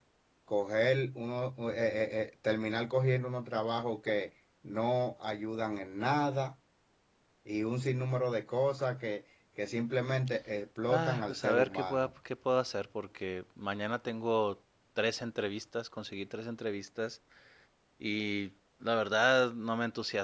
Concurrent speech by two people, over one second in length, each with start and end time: 10.9-12.1

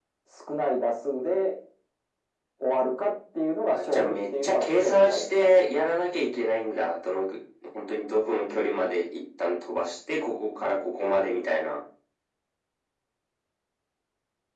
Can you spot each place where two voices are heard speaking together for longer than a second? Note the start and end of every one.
3.7-5.6

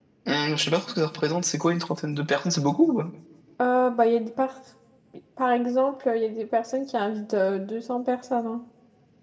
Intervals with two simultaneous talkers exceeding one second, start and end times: none

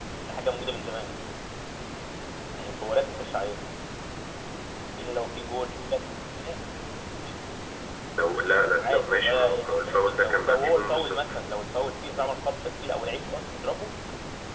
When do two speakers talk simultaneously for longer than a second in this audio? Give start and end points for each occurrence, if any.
8.8-11.3

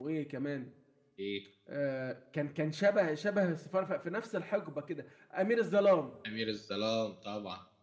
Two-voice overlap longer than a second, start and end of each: none

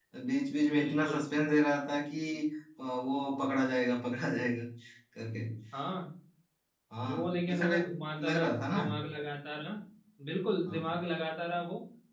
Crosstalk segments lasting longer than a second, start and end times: 7.0-8.8

